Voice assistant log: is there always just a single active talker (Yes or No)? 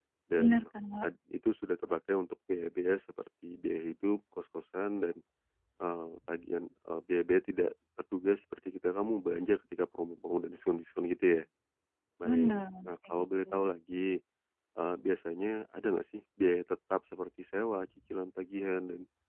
No